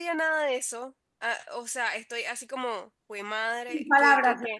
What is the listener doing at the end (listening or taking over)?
taking over